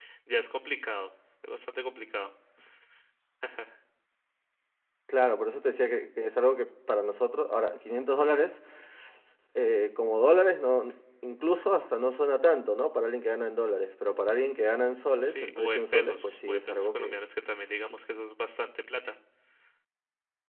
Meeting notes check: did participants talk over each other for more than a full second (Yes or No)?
Yes